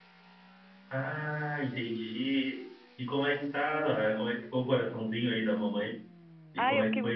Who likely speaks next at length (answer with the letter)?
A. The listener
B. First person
A